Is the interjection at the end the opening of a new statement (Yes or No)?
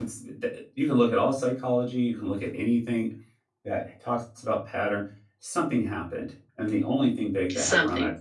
No